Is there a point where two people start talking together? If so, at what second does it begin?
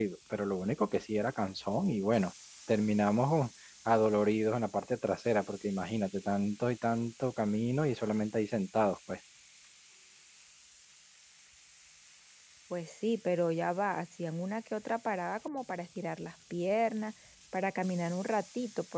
none

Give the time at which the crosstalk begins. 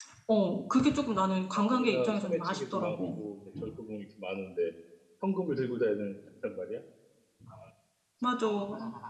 1.5 s

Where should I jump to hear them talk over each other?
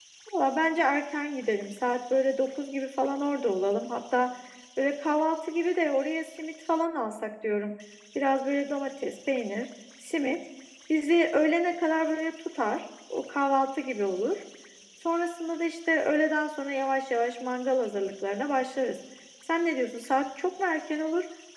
none

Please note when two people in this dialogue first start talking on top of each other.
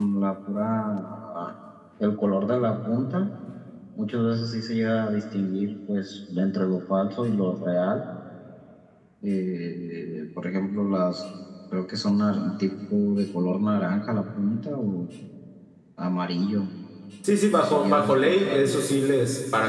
17.5 s

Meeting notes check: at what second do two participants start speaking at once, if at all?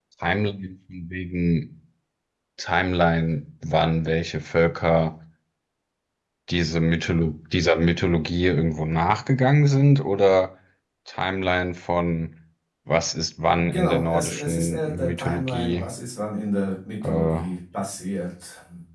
13.5 s

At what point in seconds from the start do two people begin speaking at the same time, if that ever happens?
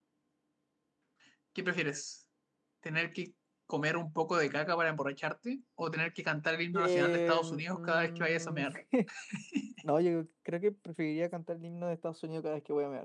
6.7 s

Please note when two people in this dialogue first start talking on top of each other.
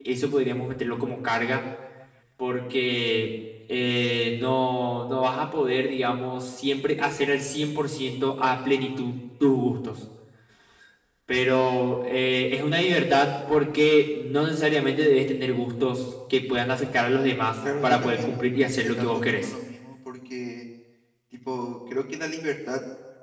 17.8 s

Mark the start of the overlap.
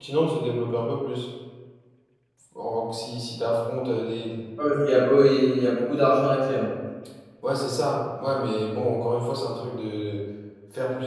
none

